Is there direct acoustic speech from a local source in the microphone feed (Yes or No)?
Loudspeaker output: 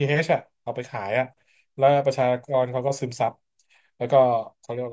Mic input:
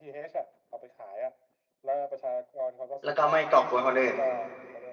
Yes